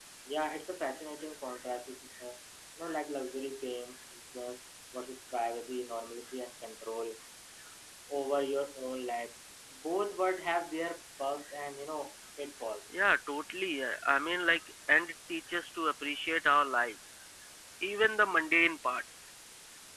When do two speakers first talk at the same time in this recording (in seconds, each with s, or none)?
none